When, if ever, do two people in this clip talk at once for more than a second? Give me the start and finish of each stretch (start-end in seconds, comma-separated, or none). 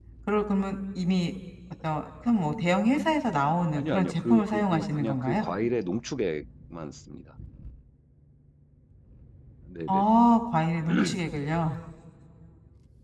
3.7-5.4